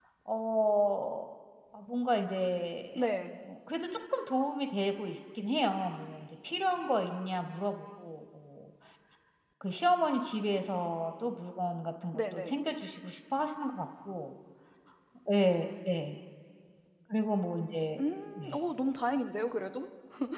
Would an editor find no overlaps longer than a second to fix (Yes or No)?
Yes